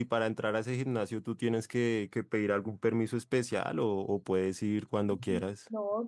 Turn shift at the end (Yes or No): Yes